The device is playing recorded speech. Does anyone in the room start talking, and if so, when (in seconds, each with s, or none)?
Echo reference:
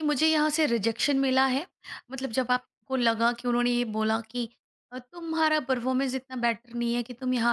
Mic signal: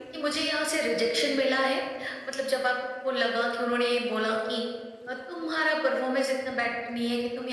none